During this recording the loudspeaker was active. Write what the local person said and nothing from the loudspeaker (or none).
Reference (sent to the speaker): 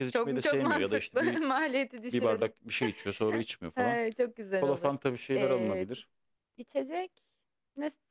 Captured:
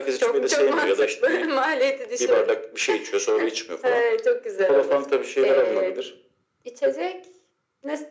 none